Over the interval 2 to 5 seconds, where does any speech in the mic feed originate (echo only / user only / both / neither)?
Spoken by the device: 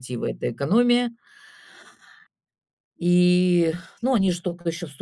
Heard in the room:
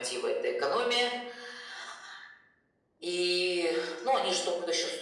echo only